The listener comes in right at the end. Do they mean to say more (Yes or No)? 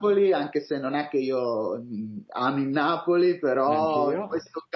No